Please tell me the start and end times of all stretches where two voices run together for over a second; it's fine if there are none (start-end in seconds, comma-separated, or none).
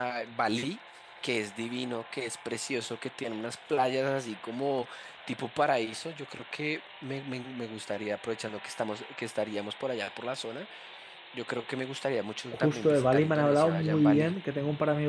12.5-14.3